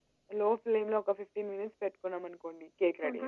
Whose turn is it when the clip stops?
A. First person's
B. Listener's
B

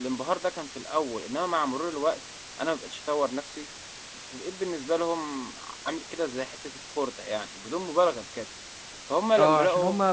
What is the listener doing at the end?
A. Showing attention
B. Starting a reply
B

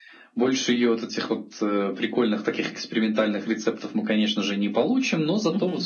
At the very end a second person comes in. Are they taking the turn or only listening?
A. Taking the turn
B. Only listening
B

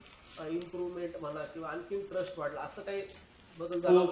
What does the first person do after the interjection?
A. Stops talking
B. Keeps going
A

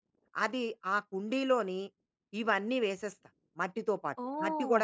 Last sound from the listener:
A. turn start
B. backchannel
A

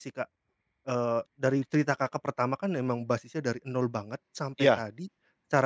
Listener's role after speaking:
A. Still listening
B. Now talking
A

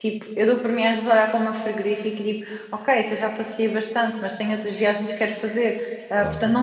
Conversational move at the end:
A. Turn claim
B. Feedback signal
B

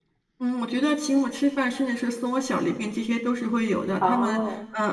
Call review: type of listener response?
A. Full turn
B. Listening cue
B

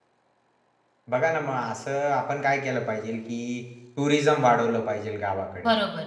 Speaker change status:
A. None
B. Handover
A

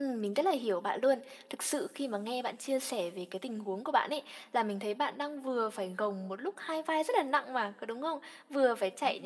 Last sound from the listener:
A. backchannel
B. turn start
A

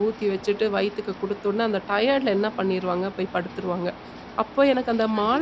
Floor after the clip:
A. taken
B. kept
B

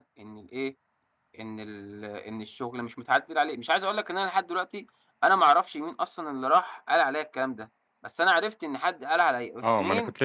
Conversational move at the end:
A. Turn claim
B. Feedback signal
A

